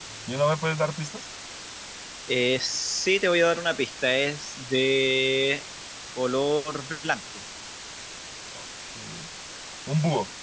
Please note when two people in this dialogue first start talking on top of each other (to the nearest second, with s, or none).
none